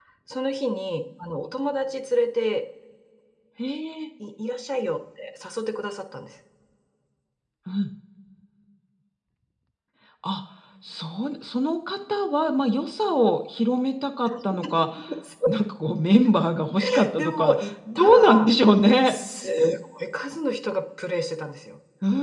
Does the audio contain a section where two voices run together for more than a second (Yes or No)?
Yes